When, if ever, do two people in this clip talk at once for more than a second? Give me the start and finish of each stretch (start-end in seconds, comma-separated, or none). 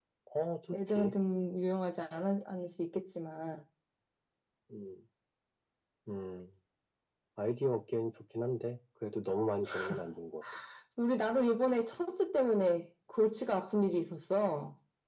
none